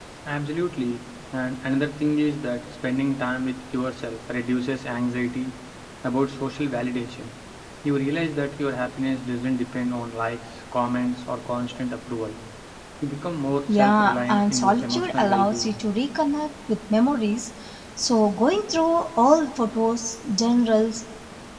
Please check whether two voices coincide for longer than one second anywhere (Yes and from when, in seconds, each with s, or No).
Yes, from 13.7 s